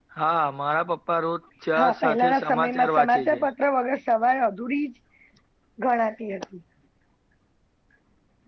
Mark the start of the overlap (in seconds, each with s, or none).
2.0 s